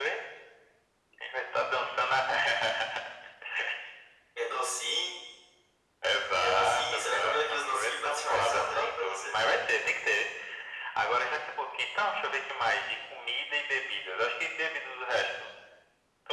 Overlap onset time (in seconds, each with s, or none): 6.4 s